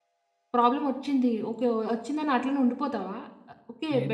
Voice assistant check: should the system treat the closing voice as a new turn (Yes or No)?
No